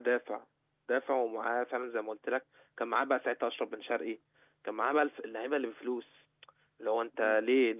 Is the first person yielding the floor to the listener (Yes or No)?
No